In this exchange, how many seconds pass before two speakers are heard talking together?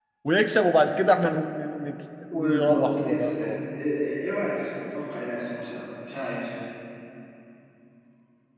2 s

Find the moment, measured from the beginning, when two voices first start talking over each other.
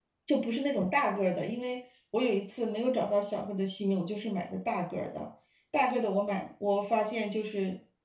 none

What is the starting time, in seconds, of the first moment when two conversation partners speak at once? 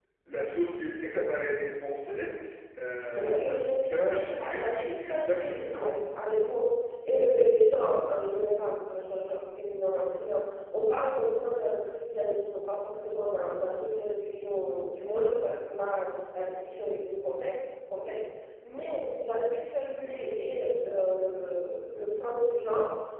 3 s

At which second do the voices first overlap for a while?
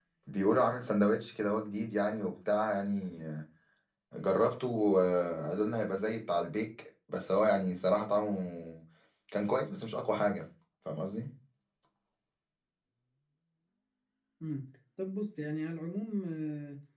none

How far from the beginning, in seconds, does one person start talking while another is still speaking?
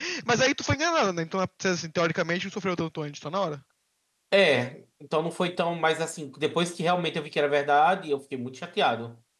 none

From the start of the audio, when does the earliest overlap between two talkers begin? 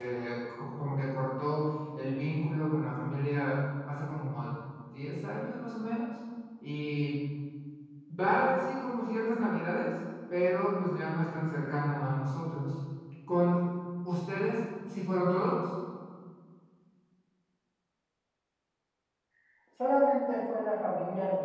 none

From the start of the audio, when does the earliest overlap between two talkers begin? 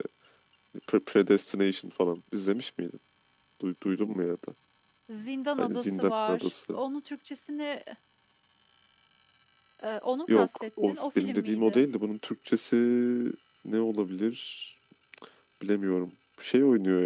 6 s

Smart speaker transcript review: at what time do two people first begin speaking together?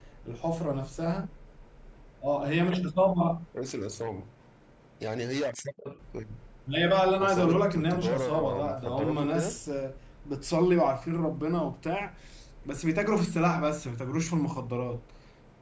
7 s

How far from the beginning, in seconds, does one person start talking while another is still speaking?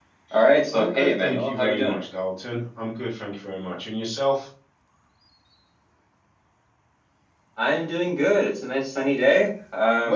1 s

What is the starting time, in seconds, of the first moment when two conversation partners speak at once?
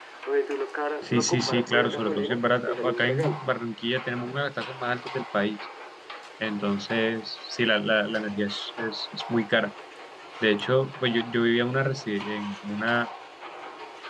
1 s

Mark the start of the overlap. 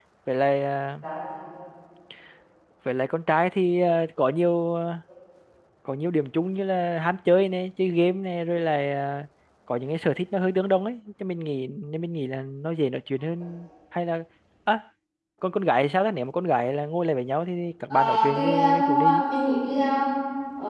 18 s

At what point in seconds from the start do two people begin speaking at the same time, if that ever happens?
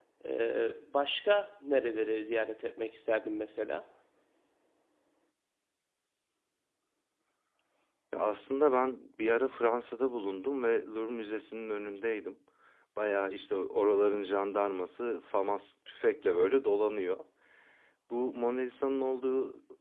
none

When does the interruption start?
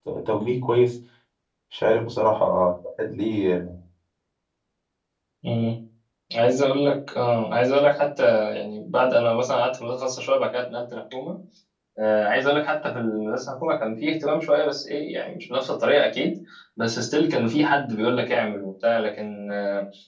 none

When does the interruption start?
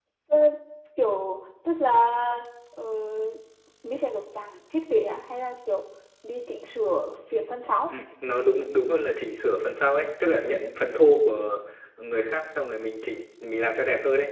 none

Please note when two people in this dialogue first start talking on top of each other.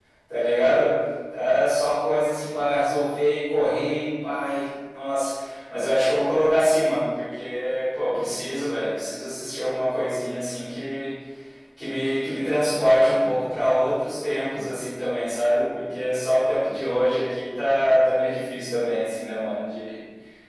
none

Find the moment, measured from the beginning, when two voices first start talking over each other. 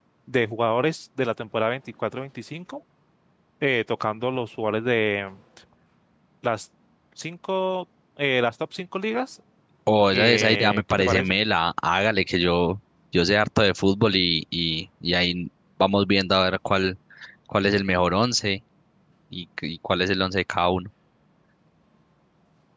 10 s

